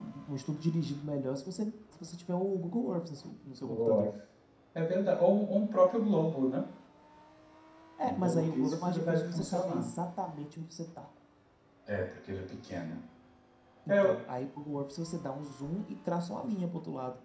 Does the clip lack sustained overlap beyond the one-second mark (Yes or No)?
No